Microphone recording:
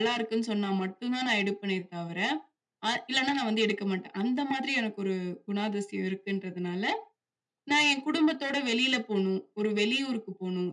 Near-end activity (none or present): none